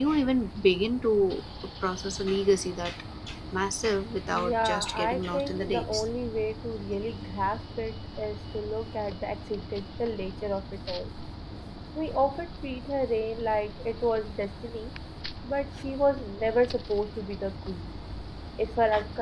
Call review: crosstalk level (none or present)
present